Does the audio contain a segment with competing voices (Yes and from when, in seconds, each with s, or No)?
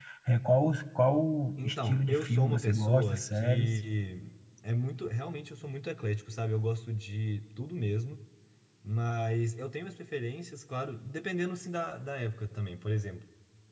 Yes, from 1.6 s